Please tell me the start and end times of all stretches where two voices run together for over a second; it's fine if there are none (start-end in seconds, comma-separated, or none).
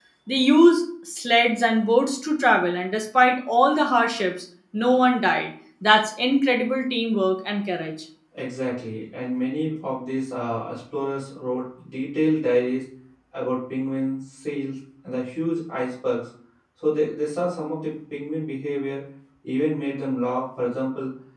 none